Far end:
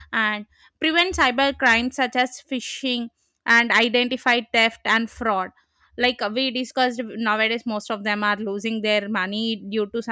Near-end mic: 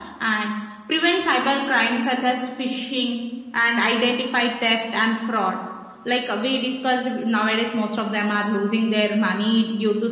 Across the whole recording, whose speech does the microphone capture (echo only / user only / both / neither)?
echo only